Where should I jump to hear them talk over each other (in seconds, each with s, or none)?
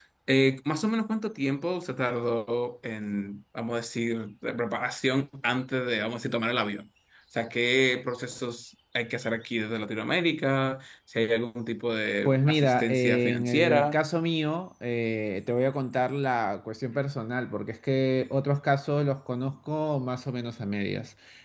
12.2 s